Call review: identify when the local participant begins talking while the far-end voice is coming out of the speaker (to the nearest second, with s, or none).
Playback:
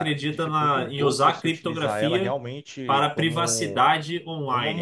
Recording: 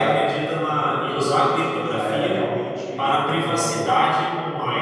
none